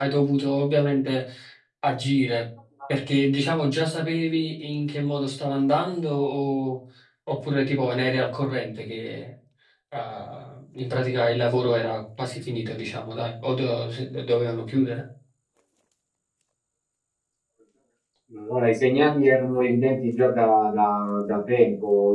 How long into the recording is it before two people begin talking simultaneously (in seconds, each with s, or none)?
none